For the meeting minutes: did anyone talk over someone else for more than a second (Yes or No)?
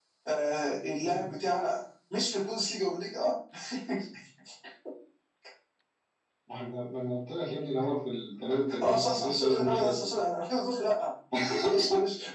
Yes